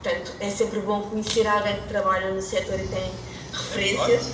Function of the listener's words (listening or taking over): taking over